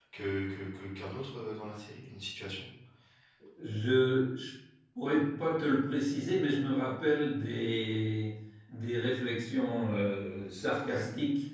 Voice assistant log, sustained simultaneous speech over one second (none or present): none